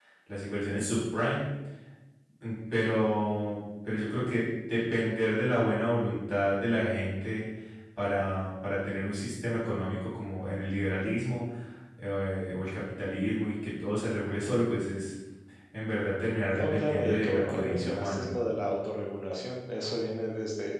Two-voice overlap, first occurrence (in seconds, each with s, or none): 16.6 s